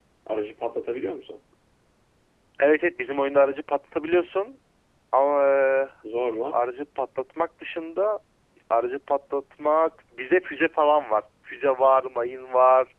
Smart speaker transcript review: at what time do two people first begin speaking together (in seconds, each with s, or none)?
none